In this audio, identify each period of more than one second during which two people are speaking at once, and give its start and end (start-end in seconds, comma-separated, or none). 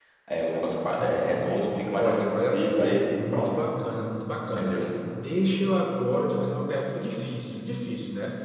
2.0-3.6